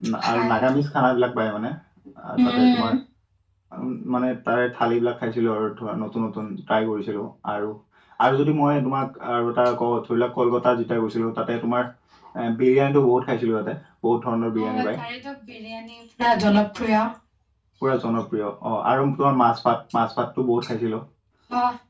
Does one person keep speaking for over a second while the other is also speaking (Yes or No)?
No